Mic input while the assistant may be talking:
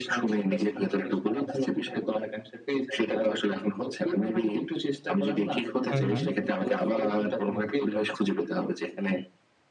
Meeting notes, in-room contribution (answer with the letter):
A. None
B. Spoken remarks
B